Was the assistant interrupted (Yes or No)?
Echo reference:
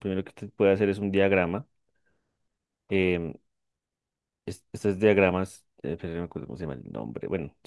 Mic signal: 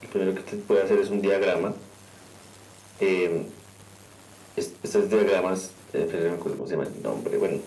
No